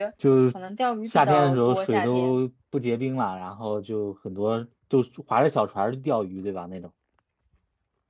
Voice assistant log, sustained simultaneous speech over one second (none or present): present